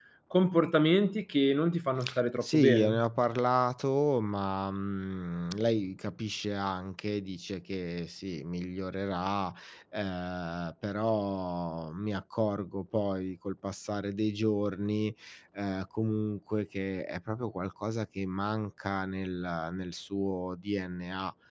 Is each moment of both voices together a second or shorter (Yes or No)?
Yes